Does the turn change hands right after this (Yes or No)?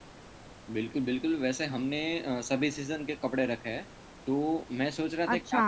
No